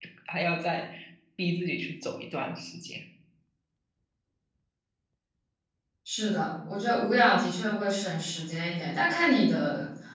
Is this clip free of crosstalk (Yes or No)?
Yes